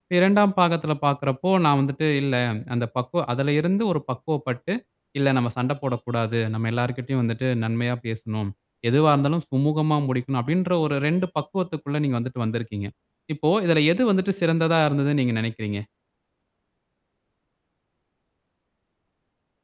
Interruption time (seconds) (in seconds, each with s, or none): none